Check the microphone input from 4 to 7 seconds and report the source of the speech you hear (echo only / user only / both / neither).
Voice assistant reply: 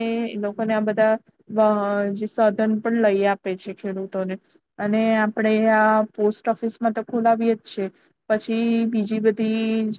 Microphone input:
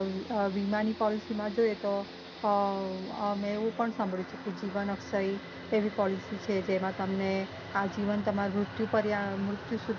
user only